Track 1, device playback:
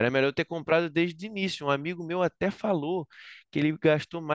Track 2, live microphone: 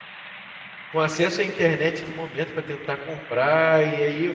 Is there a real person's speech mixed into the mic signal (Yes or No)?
Yes